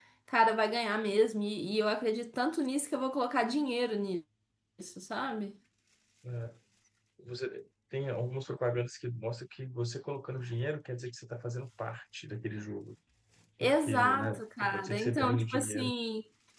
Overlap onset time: 14 s

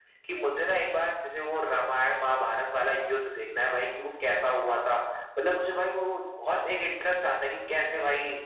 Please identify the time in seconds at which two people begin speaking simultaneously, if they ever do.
none

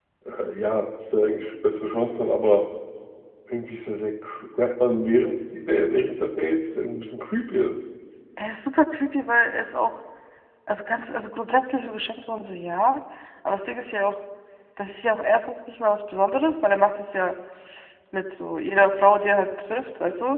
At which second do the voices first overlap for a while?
none

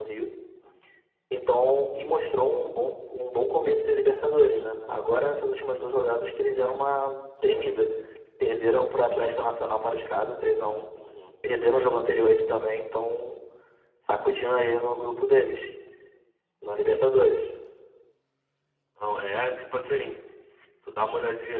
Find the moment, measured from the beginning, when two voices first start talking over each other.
none

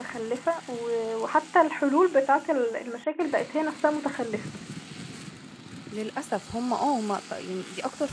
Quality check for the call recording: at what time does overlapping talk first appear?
none

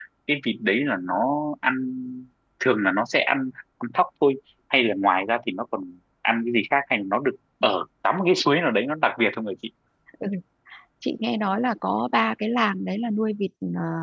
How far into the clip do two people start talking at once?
none

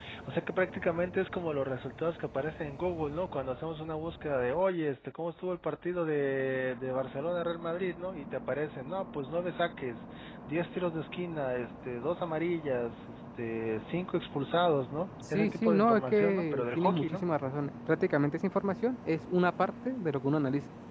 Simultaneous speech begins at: 15 s

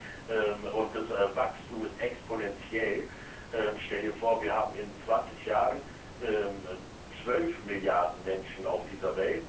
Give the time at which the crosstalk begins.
none

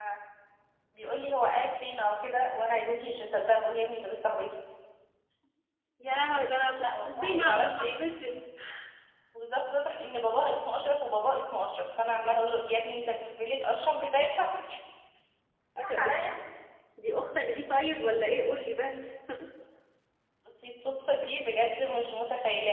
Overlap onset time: 7 s

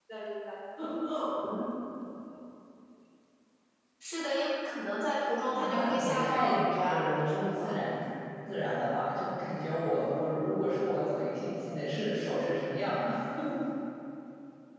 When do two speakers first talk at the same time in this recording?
6 s

